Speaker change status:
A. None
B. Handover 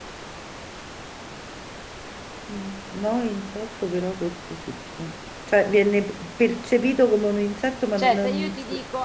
B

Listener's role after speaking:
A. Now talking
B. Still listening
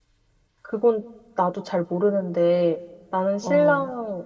B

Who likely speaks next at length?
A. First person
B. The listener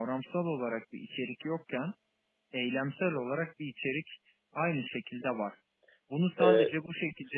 A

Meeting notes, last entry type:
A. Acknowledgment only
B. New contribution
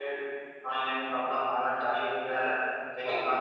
A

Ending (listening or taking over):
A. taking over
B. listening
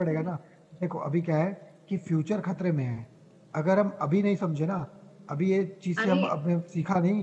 B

